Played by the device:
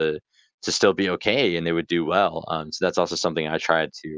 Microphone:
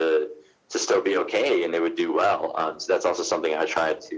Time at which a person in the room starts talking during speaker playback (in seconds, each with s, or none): none